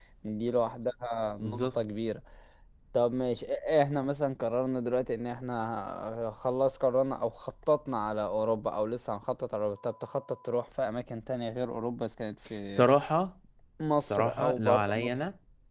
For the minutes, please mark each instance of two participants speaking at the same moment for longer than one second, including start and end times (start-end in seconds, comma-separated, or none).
14.0-15.2